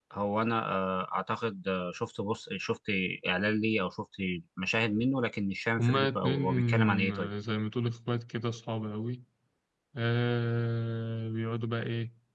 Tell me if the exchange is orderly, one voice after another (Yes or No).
No